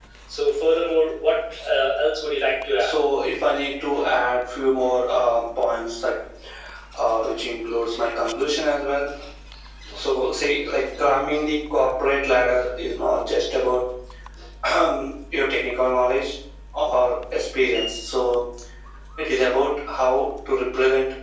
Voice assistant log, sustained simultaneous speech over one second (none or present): none